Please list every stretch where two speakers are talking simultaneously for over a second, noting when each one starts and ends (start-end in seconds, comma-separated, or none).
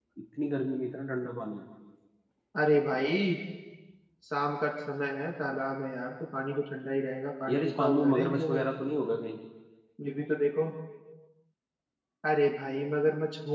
7.5-8.7